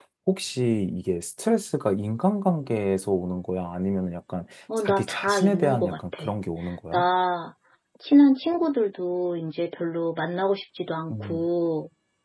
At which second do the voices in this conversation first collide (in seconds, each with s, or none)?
4.8 s